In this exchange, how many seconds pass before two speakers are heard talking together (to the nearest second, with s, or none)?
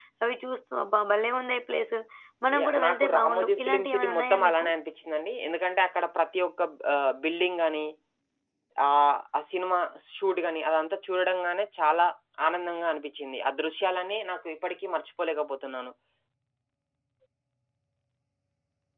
3 s